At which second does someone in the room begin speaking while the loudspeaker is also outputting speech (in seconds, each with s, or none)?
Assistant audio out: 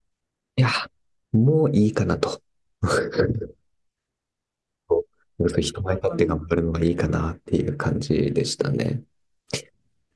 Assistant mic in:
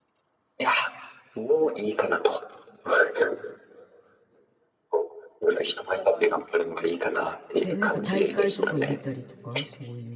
7.6 s